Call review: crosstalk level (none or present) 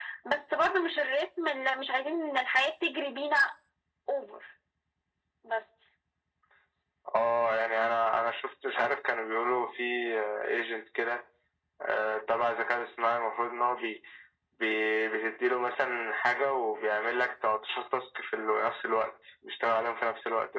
none